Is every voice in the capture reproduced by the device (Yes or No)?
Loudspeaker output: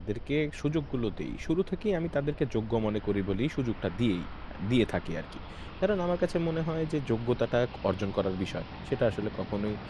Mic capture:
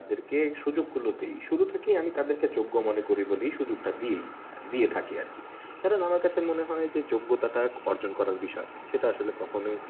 Yes